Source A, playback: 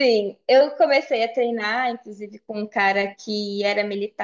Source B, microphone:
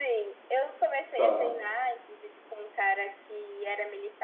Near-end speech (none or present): present